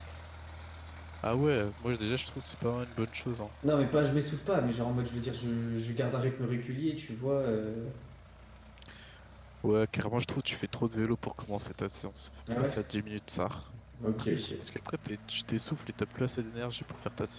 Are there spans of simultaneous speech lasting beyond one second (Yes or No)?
No